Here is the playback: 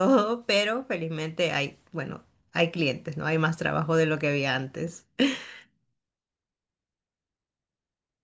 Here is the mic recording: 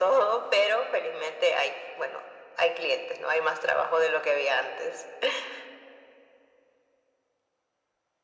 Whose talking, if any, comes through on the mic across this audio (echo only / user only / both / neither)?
echo only